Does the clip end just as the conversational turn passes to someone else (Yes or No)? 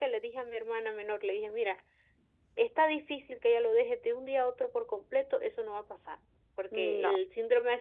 No